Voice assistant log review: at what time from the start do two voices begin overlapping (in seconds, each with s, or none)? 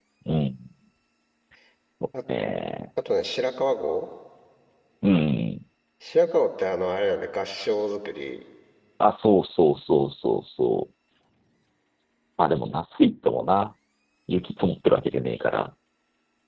none